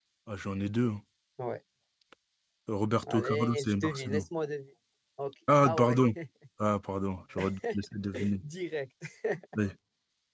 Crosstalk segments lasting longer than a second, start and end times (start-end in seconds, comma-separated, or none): 3.0-4.2